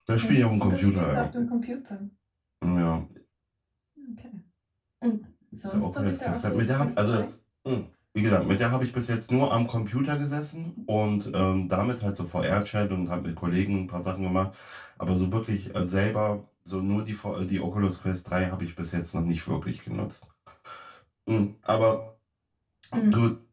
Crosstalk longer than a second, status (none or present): present